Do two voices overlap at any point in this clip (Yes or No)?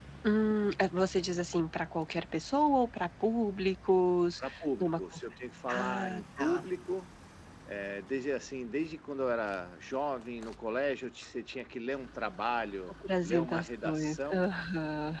Yes